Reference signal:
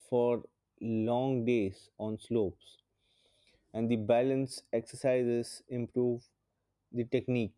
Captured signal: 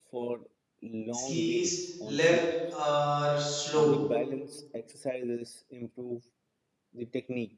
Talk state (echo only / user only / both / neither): both